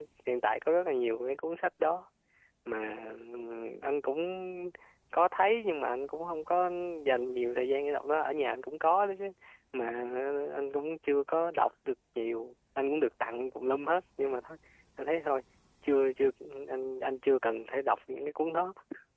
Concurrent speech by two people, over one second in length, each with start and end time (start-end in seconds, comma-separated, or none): none